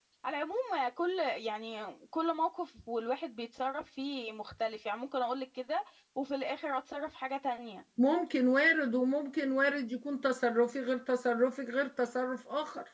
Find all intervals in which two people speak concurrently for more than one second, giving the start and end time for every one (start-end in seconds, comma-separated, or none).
none